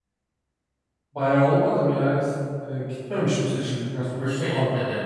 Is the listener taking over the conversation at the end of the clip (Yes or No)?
Yes